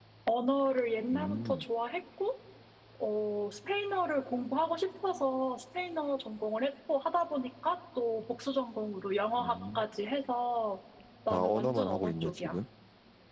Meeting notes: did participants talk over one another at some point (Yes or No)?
Yes